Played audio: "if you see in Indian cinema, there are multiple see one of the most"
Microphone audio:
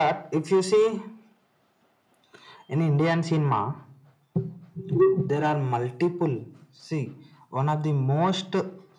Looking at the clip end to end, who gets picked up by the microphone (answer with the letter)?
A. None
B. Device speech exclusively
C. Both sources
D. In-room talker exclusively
B